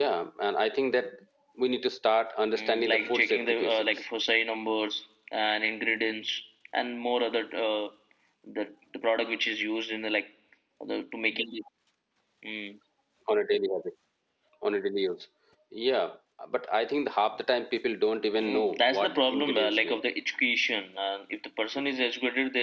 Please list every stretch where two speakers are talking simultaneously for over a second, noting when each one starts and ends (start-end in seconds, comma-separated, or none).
2.6-3.8, 18.4-20.0